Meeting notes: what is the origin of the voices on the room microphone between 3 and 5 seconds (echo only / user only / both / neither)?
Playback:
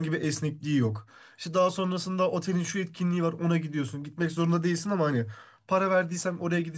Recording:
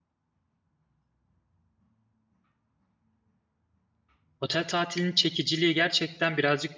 user only